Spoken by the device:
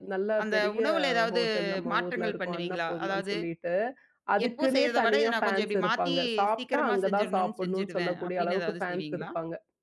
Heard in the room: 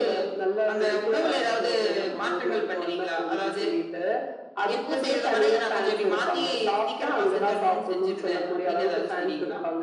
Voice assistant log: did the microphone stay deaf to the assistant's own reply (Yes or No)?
No